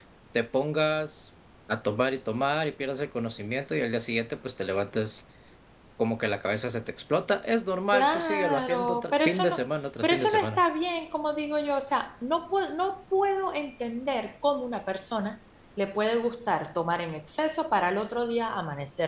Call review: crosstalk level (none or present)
present